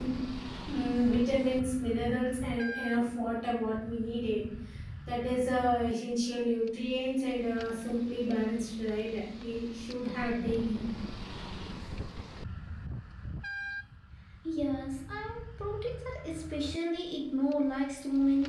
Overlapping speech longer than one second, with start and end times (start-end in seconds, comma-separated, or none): none